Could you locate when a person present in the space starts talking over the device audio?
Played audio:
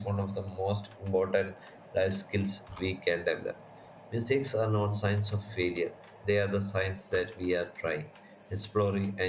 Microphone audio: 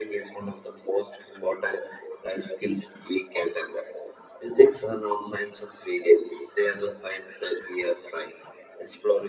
none

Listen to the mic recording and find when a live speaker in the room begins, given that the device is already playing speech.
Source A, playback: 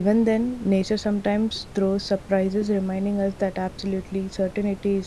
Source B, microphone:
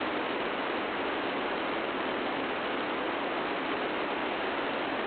none

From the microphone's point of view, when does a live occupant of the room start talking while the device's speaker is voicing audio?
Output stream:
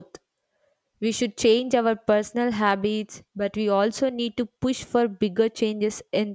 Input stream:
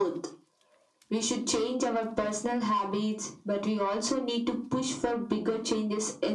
none

